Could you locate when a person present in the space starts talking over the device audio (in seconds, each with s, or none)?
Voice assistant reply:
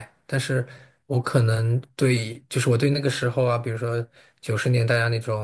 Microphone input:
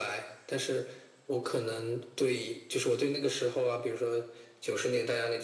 none